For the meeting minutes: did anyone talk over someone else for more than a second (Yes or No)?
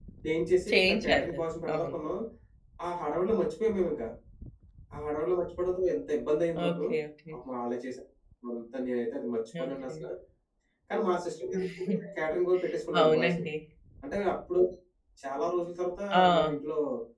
Yes